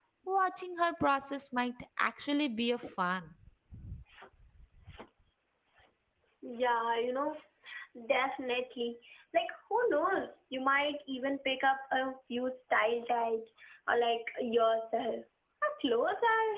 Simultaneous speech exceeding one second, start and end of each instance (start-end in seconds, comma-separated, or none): none